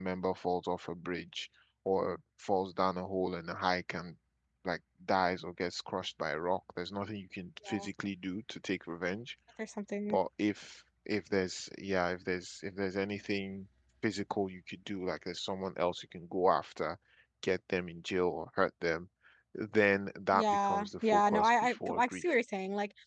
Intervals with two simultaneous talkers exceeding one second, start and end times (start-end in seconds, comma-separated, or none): 20.3-22.3